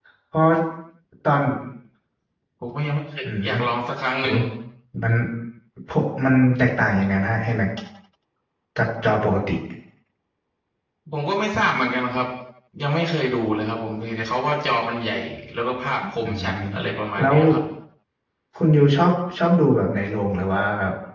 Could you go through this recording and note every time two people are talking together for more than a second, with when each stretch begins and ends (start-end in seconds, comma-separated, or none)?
none